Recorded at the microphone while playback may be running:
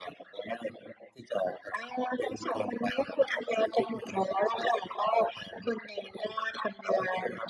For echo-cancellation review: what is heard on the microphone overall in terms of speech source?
echo only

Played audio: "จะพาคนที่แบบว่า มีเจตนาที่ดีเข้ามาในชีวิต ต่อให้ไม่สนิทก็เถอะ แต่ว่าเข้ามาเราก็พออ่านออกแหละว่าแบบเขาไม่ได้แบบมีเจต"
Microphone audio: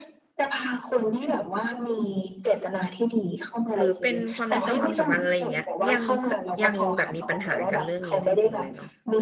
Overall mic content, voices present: both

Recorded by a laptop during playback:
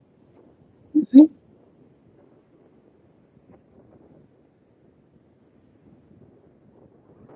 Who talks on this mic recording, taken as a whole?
user only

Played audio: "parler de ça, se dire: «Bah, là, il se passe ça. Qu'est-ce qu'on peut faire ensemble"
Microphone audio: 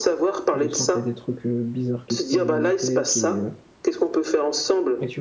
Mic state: both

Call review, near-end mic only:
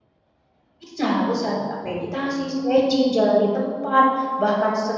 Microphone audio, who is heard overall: user only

